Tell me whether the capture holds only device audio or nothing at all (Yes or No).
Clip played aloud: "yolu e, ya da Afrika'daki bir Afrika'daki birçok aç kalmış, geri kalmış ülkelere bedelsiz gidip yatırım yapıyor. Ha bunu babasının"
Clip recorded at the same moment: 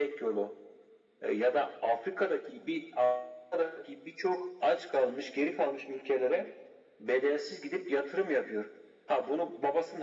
Yes